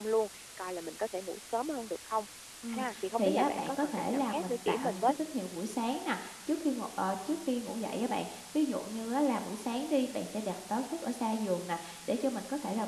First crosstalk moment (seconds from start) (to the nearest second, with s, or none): 3 s